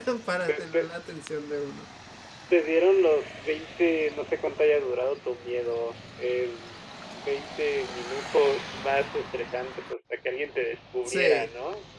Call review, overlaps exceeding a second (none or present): none